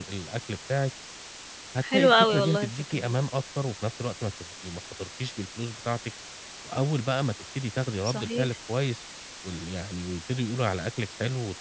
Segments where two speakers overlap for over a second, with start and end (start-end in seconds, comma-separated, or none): 1.8-3.2